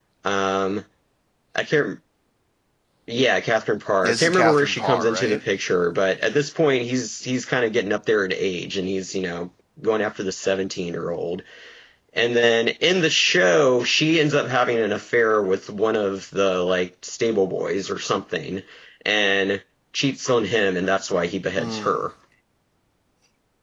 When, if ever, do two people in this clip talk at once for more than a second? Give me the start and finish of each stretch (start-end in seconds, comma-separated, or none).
4.0-5.4